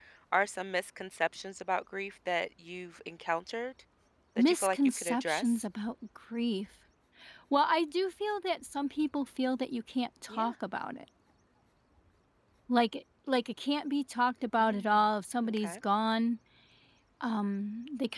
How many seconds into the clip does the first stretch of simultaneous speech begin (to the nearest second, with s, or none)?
4 s